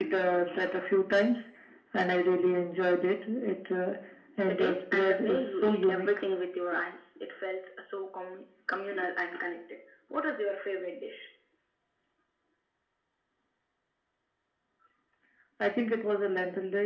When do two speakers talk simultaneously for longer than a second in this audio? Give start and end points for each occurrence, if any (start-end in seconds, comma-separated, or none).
4.5-6.2